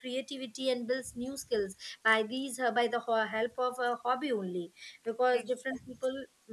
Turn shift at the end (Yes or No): No